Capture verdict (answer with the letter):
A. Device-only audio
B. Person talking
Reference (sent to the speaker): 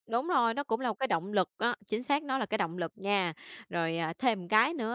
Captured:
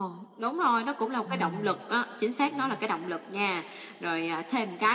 B